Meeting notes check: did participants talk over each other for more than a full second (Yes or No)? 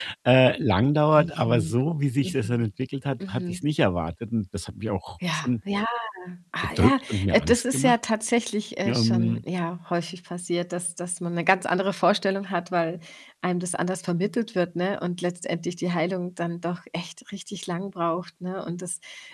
Yes